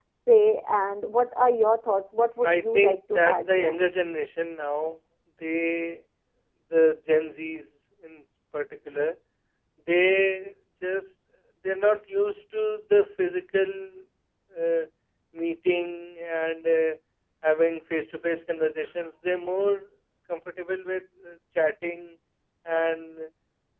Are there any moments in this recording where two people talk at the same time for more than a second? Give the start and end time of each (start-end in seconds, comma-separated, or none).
2.4-3.8